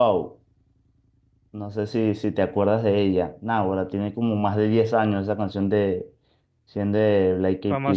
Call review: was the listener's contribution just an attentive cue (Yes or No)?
No